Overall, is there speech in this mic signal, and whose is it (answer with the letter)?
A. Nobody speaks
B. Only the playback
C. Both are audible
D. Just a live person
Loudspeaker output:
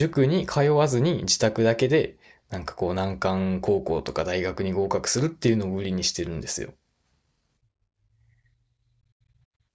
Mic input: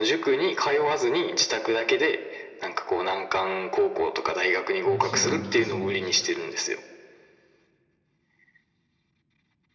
C